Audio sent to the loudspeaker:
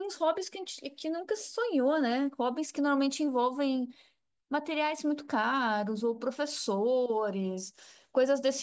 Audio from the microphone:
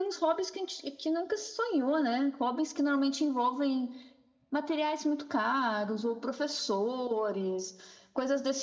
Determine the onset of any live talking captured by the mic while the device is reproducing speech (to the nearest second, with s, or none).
none